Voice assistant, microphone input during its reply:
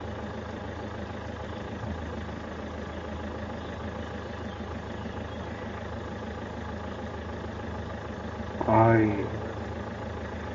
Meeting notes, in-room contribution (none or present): present